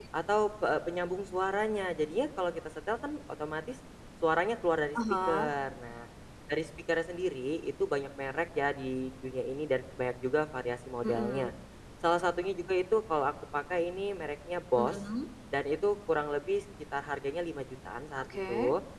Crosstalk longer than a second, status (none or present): none